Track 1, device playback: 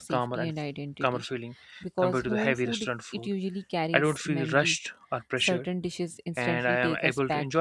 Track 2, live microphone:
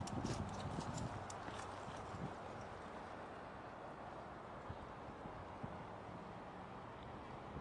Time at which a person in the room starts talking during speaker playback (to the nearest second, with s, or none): none